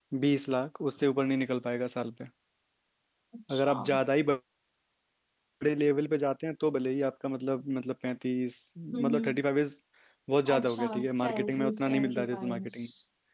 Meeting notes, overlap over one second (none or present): present